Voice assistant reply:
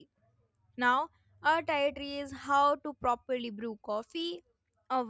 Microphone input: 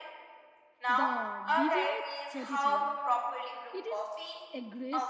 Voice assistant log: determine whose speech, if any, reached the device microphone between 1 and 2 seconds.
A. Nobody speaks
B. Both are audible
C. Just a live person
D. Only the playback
B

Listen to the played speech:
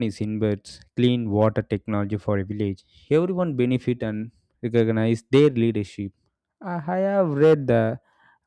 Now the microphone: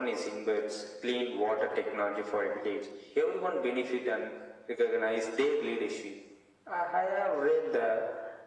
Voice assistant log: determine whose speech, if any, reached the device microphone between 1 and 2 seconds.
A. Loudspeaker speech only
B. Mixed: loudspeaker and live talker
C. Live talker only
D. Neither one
A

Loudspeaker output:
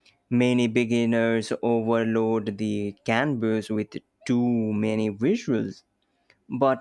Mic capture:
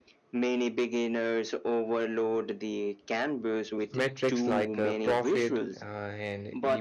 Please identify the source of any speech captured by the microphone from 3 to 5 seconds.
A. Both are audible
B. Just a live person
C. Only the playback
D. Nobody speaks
A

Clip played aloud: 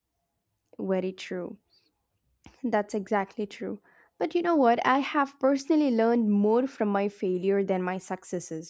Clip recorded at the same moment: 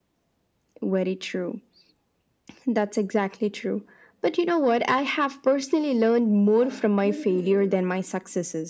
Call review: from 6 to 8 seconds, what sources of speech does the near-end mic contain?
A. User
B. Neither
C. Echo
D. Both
D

